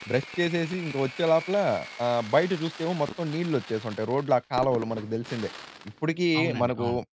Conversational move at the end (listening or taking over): listening